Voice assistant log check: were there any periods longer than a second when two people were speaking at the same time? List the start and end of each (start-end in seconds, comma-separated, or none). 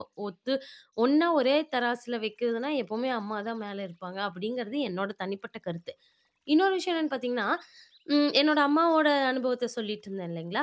none